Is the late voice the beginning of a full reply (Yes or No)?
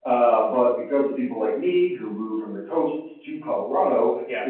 No